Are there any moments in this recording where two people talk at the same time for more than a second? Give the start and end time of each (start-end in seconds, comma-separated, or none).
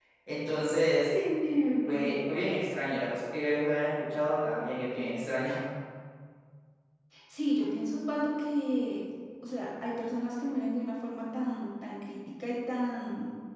none